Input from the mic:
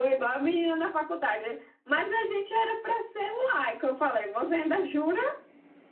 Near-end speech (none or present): none